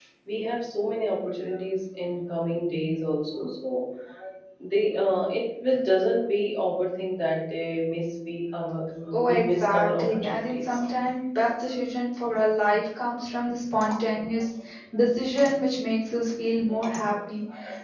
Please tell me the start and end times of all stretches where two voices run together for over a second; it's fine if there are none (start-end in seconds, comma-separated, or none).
9.1-10.6